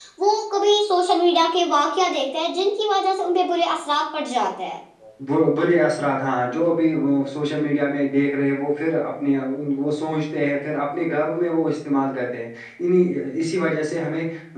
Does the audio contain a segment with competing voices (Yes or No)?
No